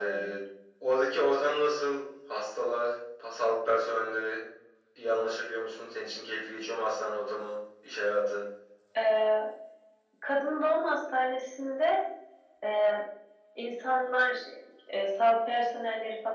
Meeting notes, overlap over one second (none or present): none